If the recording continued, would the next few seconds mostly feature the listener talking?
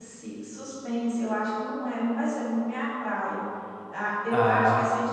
No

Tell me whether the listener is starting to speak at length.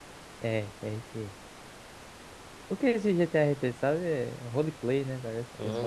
Yes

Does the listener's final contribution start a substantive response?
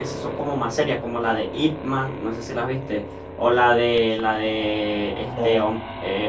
No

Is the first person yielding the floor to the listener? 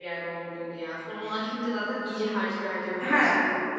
Yes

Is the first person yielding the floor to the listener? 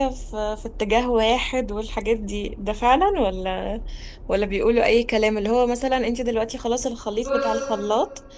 No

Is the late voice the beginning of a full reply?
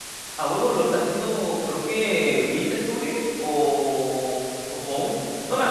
No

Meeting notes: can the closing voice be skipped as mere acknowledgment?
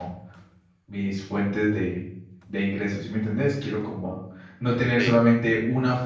Yes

